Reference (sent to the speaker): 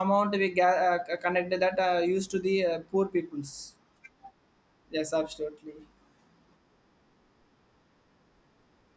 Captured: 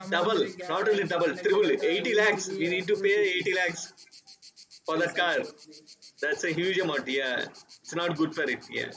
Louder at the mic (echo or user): user